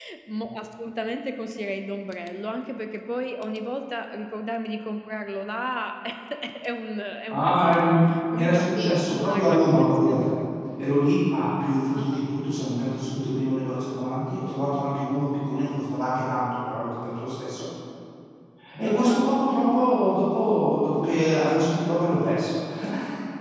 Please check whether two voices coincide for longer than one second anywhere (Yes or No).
Yes